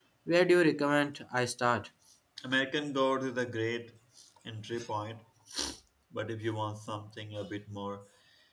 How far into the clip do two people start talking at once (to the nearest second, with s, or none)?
none